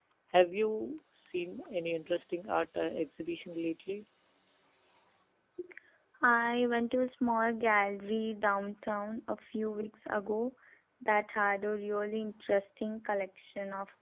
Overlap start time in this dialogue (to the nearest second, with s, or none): none